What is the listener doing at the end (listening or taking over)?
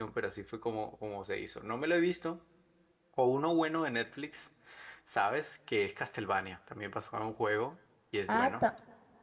taking over